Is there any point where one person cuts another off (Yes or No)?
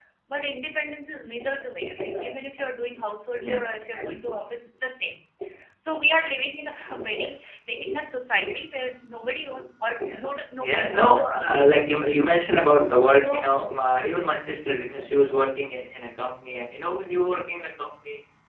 Yes